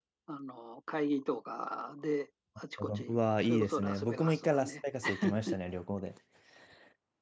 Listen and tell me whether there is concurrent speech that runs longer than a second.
Yes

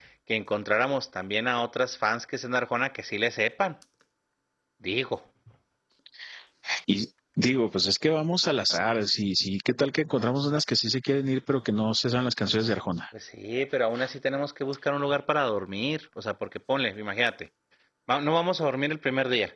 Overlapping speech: No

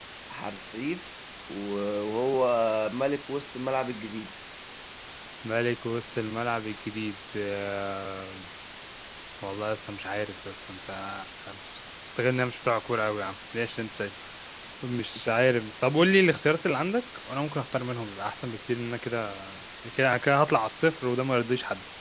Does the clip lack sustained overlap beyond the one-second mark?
Yes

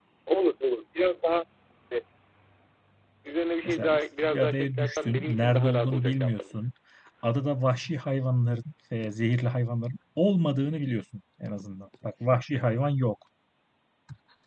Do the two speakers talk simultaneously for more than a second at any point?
Yes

